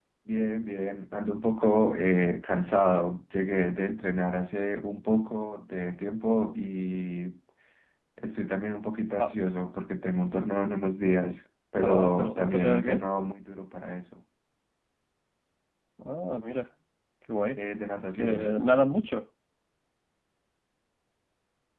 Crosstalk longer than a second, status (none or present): present